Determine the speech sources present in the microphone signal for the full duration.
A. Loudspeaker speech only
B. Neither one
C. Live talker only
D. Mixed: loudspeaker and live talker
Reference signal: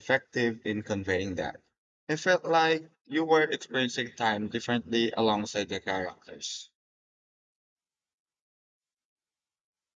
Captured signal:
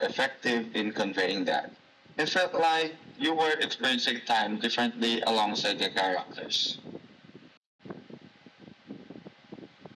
A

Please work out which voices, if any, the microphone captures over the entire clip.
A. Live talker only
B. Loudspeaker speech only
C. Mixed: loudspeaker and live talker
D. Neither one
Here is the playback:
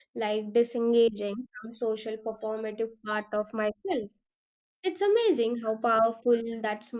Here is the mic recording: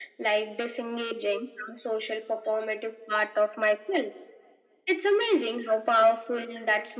B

